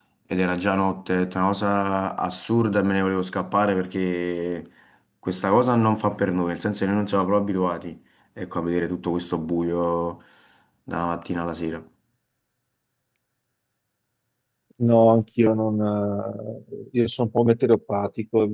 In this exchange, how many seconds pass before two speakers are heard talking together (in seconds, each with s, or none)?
none